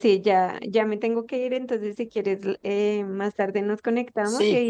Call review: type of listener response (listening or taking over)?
listening